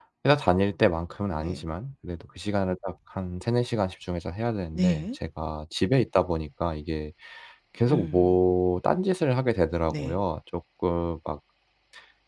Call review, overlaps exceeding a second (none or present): none